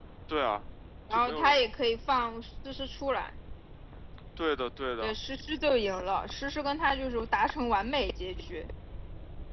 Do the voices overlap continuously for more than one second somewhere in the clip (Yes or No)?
No